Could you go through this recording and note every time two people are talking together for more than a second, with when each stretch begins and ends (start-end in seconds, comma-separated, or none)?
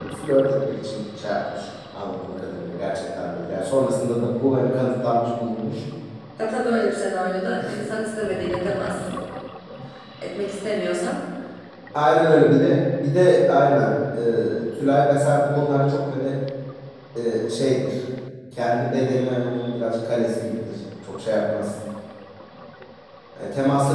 none